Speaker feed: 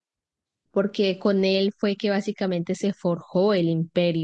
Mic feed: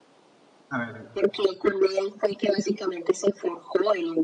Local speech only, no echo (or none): A ver,